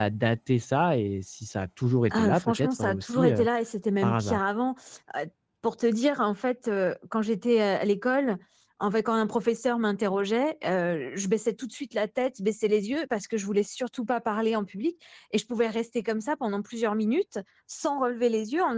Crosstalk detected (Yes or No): Yes